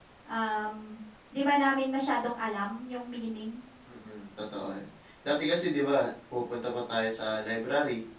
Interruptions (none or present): none